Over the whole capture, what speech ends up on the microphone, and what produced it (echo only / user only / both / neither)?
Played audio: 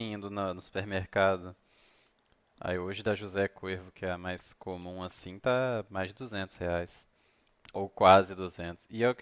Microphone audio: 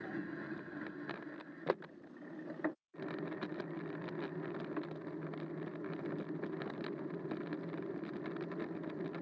neither